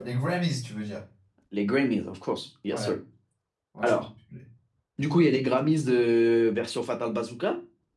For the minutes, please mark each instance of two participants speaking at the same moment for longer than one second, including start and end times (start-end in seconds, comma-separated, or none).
none